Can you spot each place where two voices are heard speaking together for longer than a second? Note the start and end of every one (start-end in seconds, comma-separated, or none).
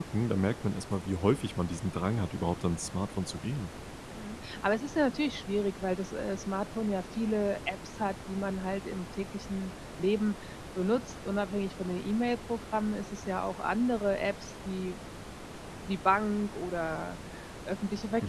none